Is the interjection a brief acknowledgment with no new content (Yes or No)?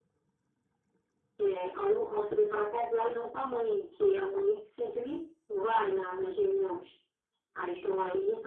Yes